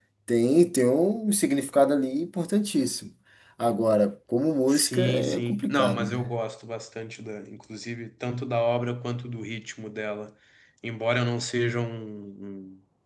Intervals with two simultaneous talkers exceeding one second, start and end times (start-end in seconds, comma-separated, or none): 4.7-6.2